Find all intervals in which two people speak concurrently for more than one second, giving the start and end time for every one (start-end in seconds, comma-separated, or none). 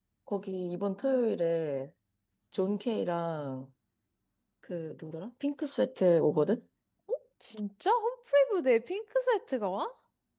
none